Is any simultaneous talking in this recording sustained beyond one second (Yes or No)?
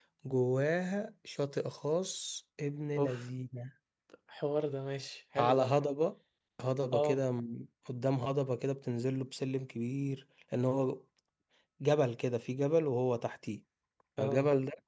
No